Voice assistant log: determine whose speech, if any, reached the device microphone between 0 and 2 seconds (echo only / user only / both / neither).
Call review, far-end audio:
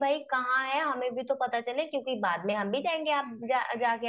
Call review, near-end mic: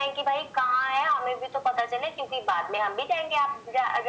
echo only